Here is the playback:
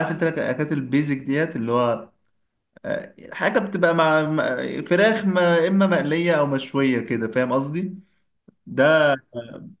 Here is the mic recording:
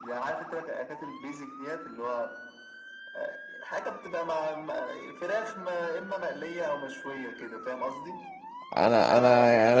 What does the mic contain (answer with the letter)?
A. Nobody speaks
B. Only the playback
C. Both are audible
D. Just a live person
C